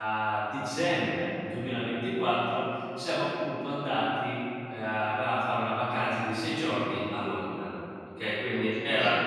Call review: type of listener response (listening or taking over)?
listening